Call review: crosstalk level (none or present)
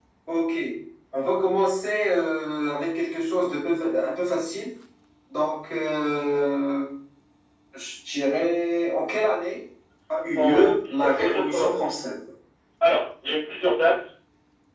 present